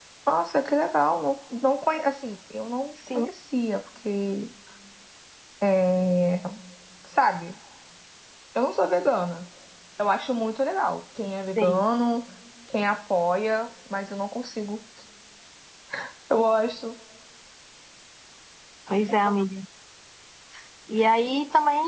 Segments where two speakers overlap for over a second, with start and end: none

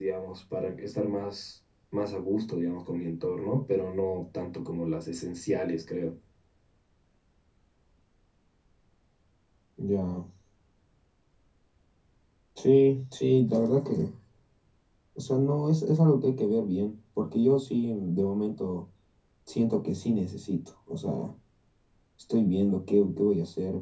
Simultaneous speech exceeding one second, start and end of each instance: none

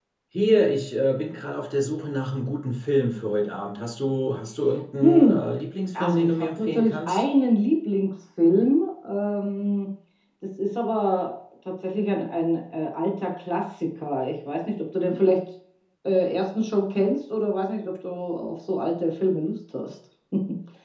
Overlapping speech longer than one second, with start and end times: 5.9-7.2

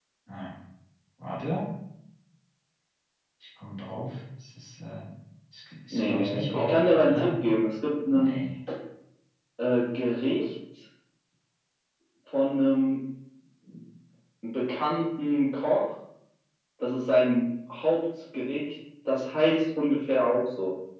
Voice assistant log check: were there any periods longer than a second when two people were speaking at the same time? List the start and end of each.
5.9-7.3

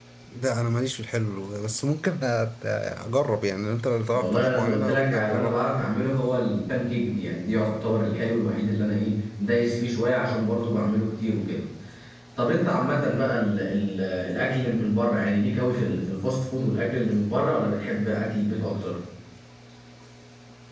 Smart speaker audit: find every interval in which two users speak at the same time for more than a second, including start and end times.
4.2-5.6

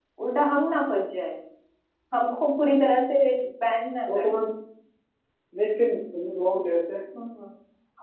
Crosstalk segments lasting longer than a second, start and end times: none

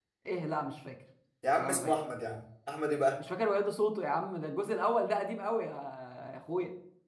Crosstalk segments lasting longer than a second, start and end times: none

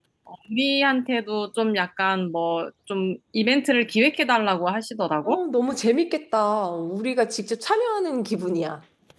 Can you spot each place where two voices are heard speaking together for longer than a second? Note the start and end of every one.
none

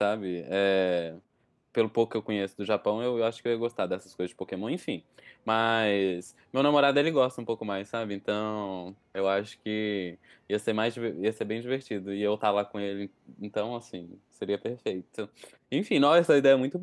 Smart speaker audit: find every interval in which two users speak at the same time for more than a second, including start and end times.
none

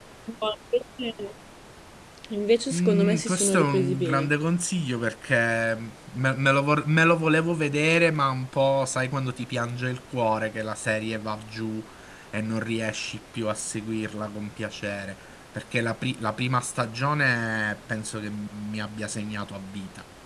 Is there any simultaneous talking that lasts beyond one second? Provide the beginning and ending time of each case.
2.7-4.3

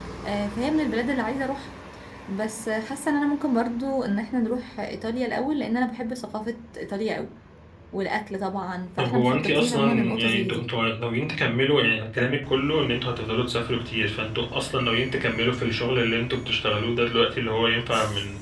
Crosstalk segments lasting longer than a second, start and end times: 9.0-10.6

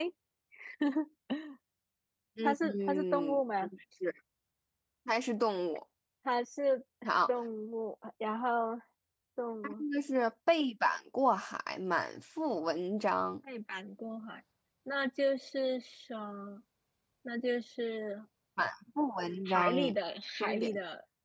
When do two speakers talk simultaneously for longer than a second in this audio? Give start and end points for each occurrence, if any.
2.4-3.7

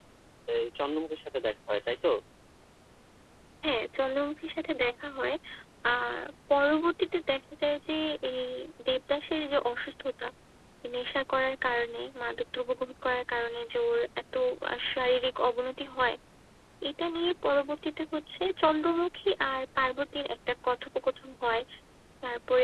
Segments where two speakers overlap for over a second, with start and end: none

